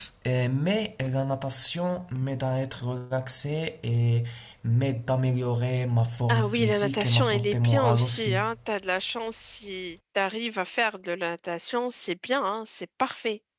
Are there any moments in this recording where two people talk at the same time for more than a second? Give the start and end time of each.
6.3-8.4

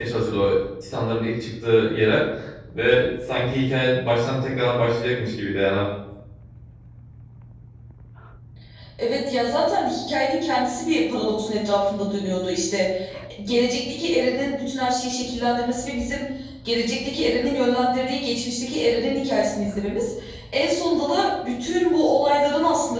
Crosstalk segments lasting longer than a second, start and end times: none

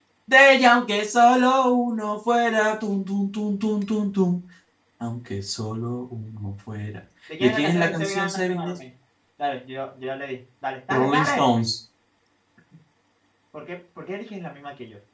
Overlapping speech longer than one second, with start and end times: 7.4-8.8

